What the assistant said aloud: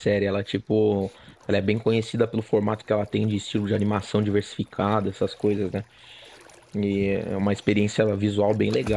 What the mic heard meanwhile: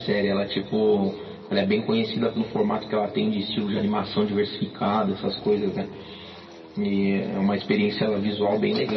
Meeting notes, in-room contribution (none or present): none